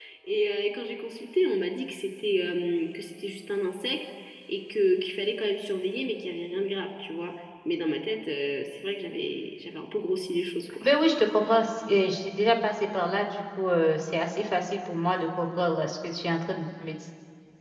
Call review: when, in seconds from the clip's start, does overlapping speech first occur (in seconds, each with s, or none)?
none